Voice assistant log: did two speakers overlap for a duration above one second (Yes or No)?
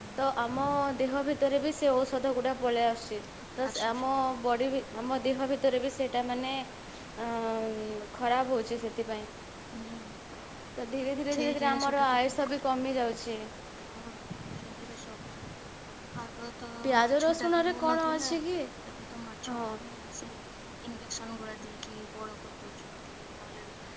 Yes